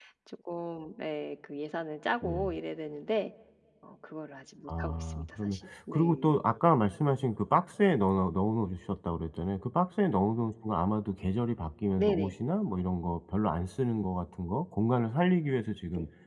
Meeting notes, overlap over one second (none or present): present